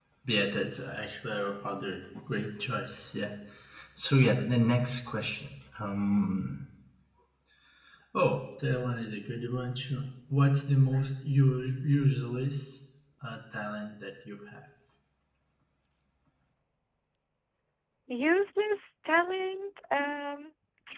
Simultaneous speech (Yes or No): No